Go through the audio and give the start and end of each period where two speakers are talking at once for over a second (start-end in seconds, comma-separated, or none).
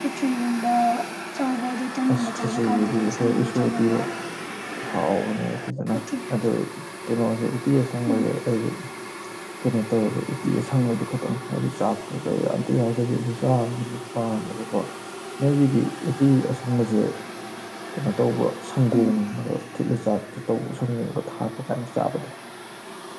2.1-4.0